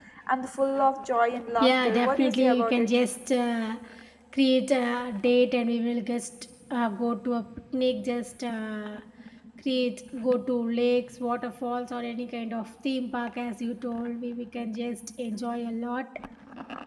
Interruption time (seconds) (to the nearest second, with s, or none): 2 s